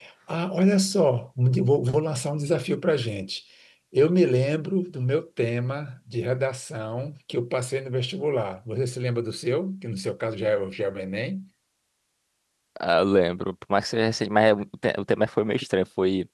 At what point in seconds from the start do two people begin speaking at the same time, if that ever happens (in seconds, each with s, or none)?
none